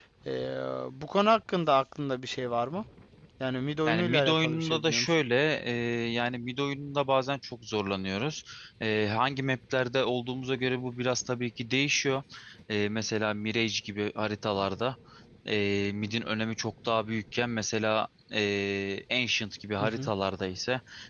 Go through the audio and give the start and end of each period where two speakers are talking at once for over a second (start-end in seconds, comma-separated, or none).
3.8-5.2